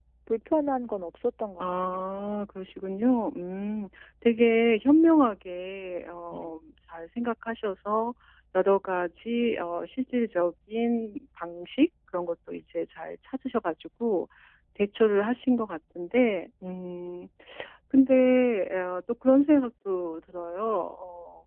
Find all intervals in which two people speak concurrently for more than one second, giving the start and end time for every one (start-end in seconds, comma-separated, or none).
none